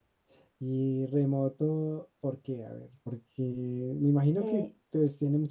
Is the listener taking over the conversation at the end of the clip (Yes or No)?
No